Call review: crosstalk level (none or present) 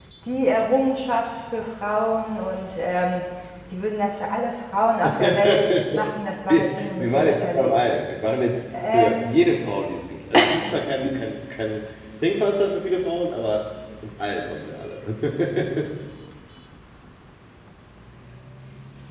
present